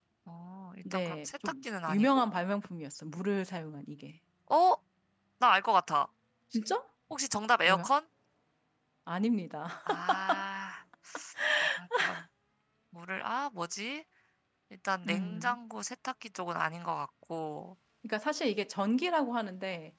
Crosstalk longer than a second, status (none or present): present